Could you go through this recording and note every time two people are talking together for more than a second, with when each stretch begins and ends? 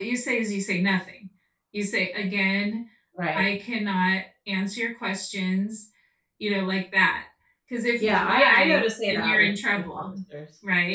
8.0-10.0

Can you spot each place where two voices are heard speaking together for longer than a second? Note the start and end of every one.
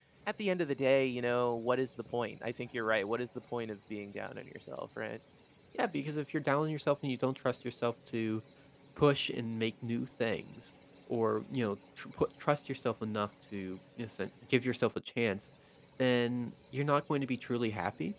none

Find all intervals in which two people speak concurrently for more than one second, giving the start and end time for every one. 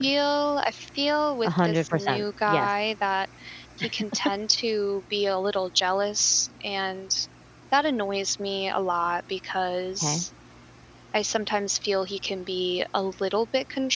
1.4-2.7

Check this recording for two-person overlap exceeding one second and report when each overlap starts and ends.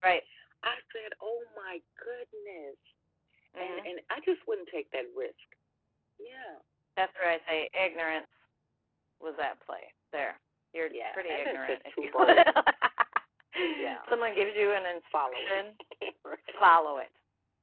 10.9-12.4

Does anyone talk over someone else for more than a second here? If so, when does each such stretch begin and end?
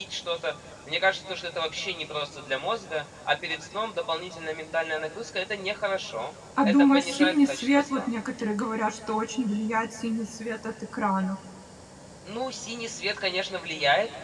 6.6-8.0

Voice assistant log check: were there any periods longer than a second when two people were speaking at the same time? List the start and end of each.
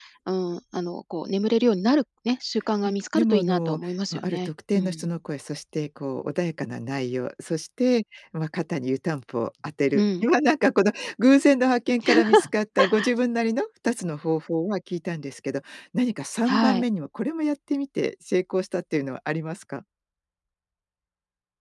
2.8-5.1

